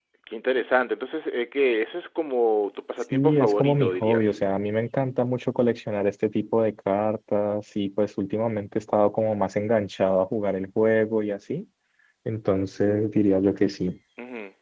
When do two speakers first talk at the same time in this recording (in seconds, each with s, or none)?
3.1 s